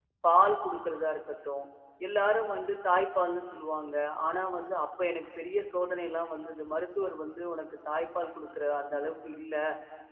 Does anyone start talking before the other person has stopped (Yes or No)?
No